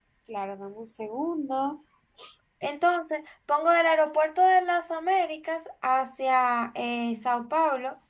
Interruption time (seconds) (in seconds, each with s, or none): none